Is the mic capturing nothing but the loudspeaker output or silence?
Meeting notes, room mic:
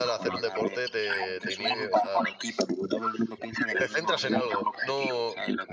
No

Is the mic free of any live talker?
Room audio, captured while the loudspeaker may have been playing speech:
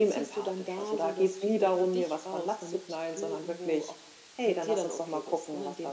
Yes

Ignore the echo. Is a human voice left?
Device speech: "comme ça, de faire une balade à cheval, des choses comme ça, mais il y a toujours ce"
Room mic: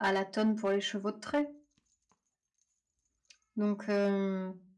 Yes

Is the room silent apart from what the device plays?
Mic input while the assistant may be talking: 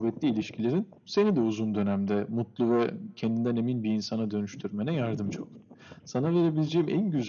Yes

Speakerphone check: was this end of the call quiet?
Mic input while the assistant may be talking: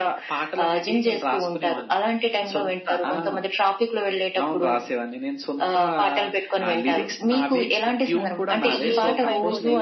No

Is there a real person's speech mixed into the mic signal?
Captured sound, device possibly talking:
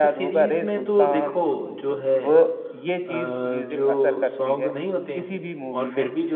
Yes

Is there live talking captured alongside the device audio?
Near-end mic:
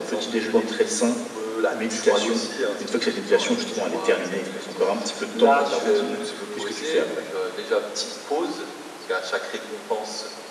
No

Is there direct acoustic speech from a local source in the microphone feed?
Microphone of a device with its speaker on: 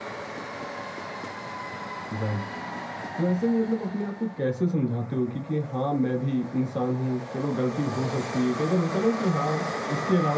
Yes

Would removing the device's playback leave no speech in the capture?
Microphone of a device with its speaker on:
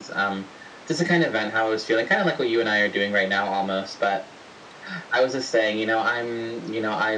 Yes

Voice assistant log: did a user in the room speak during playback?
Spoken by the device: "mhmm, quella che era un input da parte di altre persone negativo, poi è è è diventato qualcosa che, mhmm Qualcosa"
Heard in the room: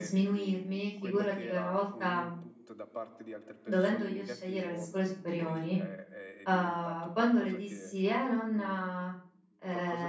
Yes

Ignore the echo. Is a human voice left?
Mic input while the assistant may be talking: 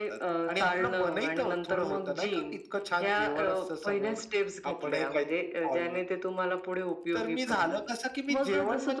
No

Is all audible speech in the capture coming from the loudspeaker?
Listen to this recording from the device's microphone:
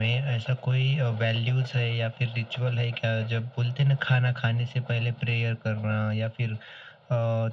Yes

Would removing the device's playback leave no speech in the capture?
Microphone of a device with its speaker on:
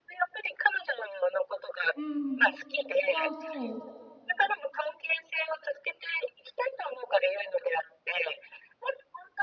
No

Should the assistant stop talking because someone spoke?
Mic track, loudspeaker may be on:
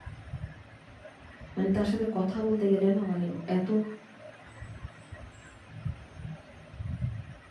Yes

